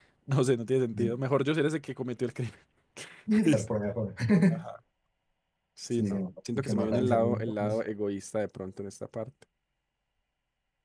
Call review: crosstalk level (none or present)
present